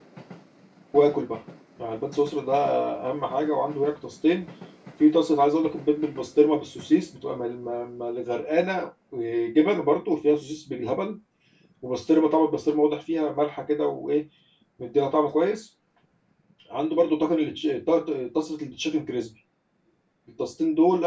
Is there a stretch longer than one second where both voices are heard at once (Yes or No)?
No